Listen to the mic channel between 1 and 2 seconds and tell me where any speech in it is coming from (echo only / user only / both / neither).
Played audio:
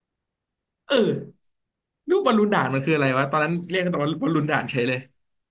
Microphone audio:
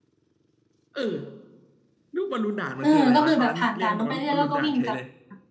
echo only